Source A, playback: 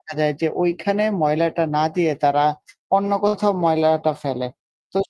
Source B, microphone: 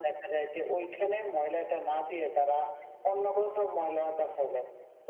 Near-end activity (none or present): none